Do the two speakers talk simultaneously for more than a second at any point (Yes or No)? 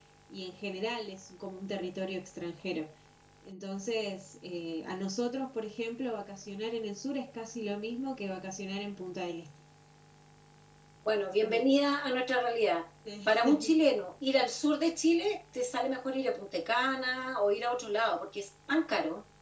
No